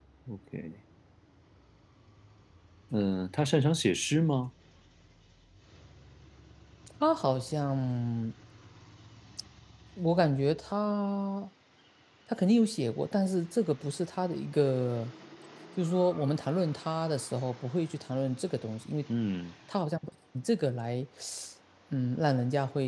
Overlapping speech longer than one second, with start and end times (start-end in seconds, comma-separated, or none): none